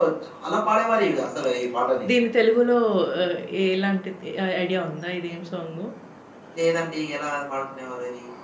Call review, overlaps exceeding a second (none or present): none